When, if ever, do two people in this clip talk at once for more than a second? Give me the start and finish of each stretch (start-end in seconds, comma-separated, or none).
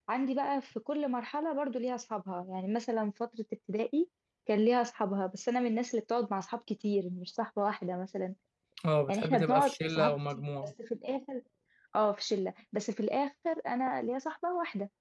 9.1-10.7